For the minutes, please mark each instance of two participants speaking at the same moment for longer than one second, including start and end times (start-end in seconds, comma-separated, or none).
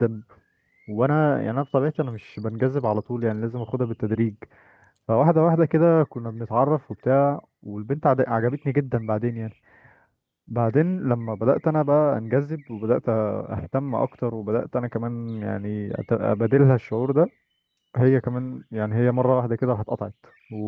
none